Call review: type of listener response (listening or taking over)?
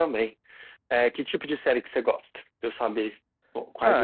taking over